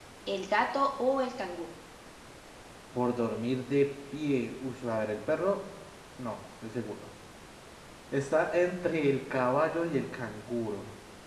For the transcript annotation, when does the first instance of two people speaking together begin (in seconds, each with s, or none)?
none